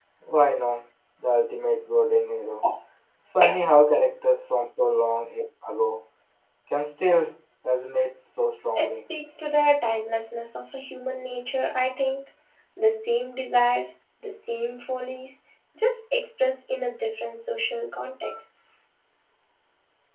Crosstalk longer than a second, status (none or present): none